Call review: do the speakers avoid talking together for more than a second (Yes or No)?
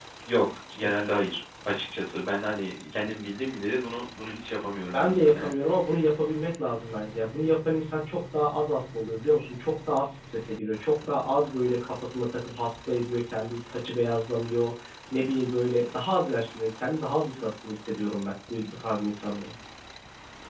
Yes